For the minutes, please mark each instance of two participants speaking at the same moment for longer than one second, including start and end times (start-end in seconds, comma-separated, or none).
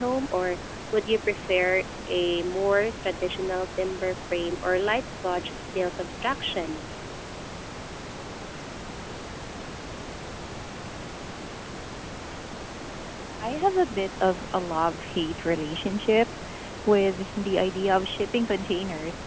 none